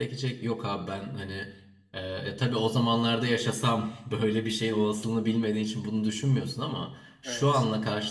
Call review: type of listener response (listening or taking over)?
listening